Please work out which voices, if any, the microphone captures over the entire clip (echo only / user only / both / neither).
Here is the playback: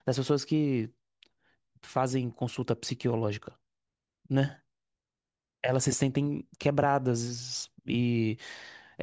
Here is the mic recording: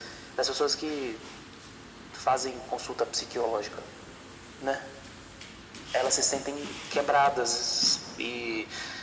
echo only